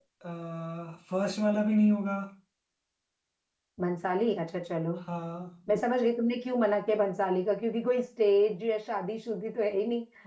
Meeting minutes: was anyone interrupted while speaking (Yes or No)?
No